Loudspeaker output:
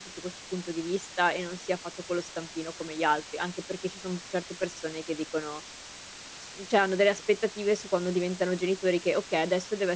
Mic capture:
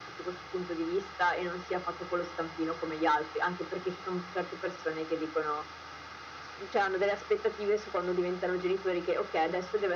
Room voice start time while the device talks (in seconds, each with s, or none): none